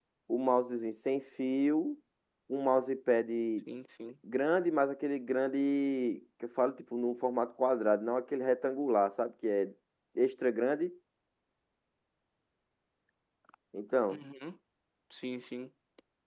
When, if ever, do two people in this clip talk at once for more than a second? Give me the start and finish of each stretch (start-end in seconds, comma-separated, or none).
none